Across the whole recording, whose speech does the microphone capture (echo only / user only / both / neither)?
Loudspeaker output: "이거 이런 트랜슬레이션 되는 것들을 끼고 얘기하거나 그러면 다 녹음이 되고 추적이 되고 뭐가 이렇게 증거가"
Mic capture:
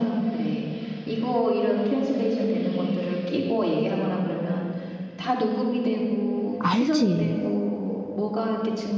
both